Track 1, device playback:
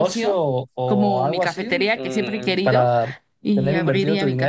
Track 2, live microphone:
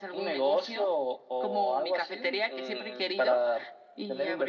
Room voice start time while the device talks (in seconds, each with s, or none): none